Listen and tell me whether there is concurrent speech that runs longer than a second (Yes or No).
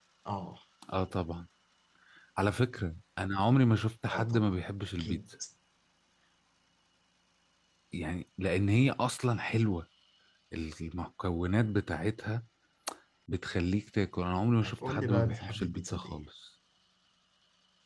Yes